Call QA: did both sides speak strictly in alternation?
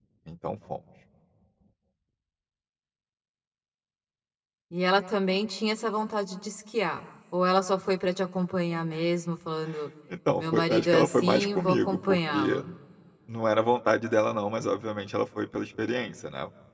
No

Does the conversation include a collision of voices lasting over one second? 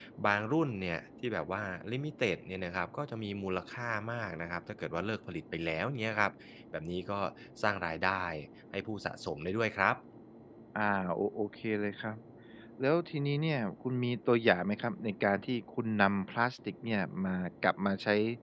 No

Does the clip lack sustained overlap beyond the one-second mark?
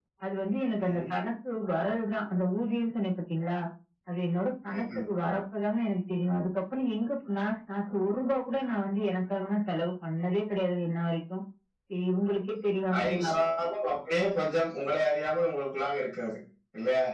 Yes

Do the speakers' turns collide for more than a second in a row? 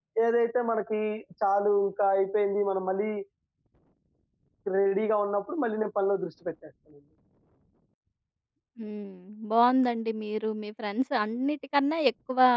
No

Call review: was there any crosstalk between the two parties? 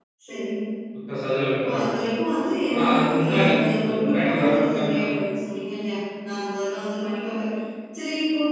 Yes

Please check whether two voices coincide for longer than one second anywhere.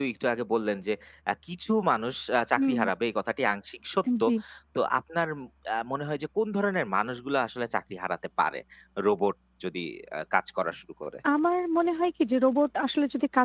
No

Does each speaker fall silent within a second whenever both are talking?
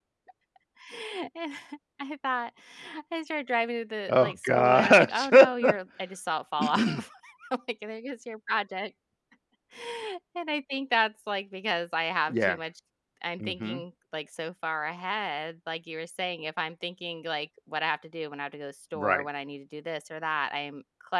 No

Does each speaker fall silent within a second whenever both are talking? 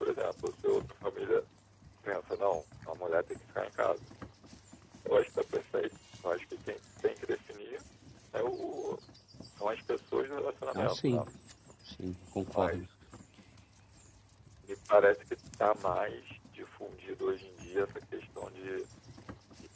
Yes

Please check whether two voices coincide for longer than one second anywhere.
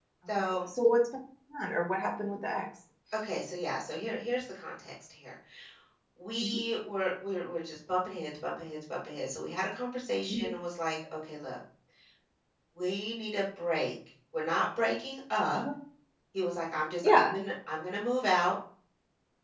No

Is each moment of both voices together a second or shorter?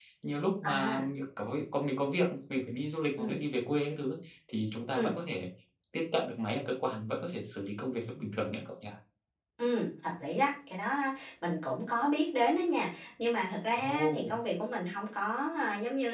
Yes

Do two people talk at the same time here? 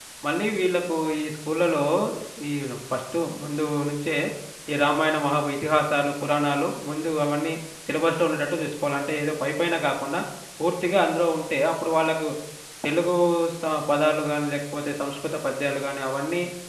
No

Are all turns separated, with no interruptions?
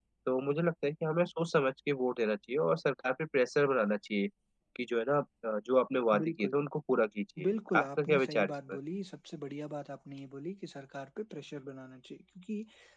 No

